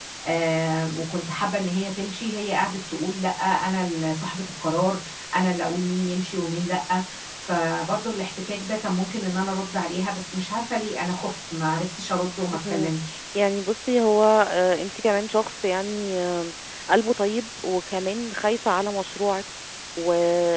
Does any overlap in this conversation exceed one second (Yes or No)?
No